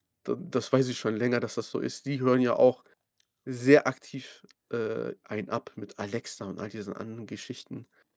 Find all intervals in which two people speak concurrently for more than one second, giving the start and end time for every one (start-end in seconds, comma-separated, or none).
none